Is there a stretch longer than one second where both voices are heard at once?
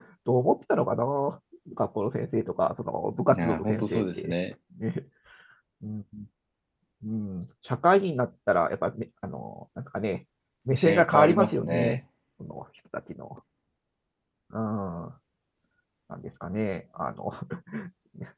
Yes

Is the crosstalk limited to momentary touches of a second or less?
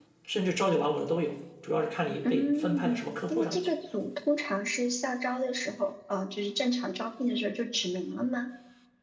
No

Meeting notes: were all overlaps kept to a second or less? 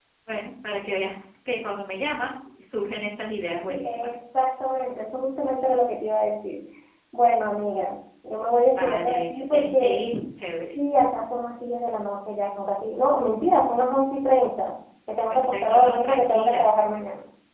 No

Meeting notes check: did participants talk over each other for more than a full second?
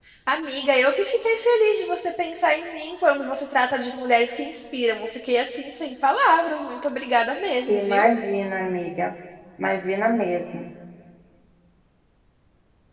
No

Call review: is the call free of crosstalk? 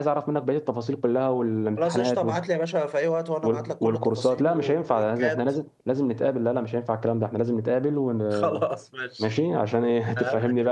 No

